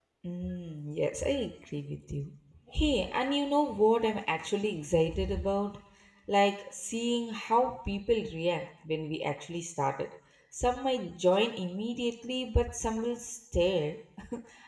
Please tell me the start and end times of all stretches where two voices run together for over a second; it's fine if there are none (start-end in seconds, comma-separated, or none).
none